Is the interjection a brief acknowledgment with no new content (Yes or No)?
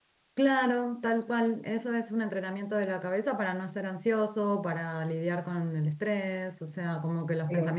Yes